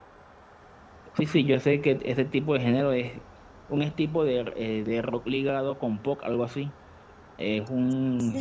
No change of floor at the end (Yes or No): Yes